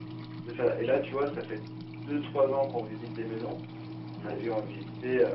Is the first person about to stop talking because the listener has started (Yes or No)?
No